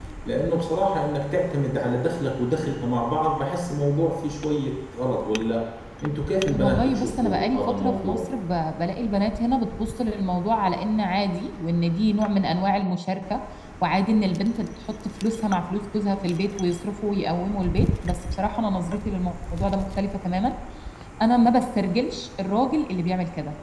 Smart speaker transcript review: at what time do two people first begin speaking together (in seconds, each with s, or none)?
6.5 s